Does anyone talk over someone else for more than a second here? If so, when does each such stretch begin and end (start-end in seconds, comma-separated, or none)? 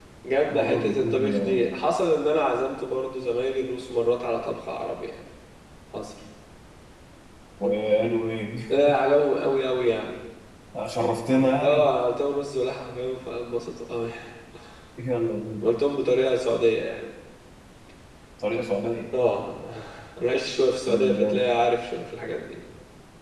0.5-1.7